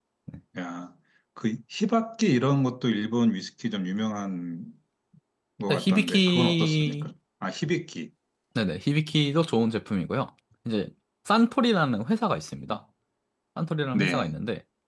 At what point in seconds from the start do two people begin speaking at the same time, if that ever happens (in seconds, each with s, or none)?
5.7 s